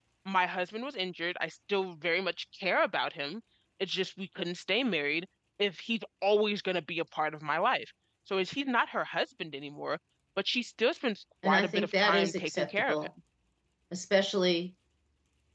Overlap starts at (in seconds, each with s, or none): 11.4 s